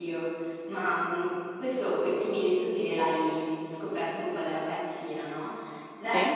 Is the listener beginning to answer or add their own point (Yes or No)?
No